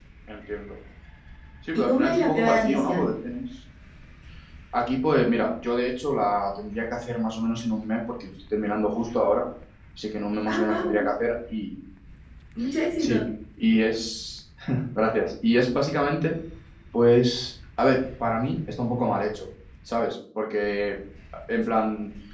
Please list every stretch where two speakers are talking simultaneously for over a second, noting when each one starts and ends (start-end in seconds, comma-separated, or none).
1.7-3.1